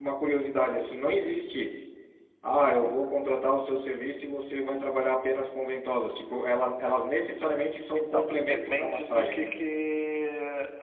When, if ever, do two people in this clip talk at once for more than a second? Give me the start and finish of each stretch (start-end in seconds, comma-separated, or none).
7.9-9.6